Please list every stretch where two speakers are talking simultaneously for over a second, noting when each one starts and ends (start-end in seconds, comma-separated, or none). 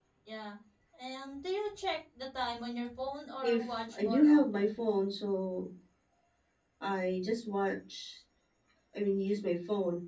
3.4-4.8